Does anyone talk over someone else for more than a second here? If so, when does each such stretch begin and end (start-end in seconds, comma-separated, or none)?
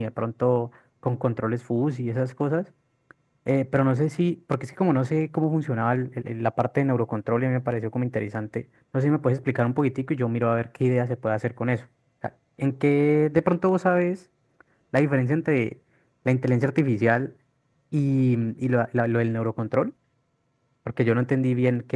none